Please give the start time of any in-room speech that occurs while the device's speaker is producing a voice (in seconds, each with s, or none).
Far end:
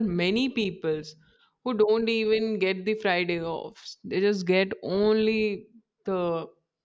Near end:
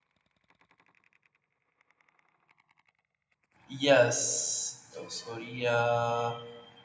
3.7 s